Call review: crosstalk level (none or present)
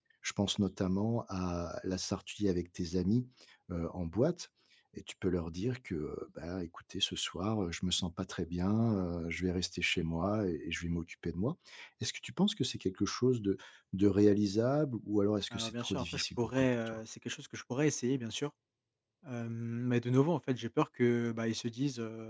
present